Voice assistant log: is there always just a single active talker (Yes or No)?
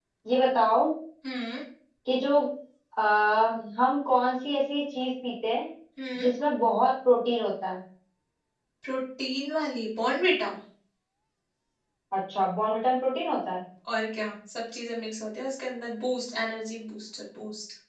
Yes